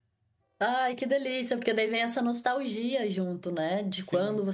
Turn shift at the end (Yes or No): No